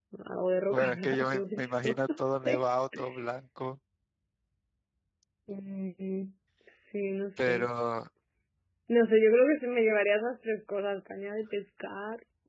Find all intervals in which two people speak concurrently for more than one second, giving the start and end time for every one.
0.7-2.6

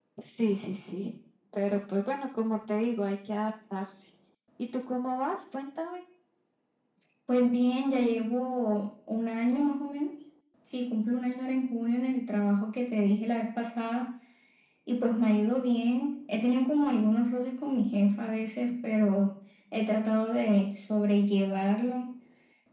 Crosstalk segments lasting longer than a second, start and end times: none

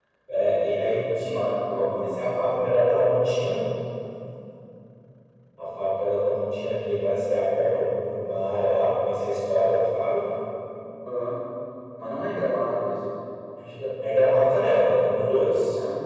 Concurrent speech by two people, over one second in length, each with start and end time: 0.5-2.2

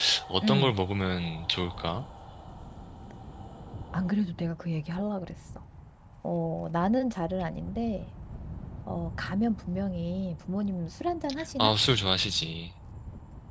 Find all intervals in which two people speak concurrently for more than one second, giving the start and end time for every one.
none

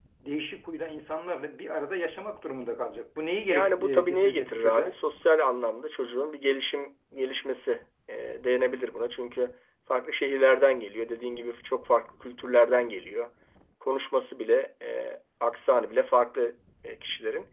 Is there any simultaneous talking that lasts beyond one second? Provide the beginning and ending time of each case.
3.5-5.0

